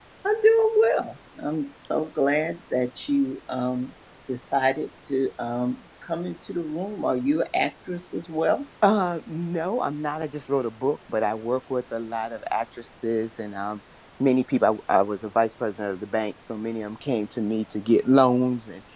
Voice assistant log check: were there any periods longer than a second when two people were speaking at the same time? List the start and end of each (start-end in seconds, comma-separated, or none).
none